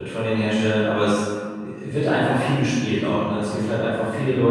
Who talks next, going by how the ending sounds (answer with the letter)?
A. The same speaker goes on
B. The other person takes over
A